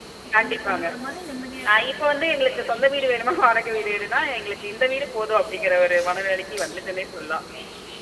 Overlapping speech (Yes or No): Yes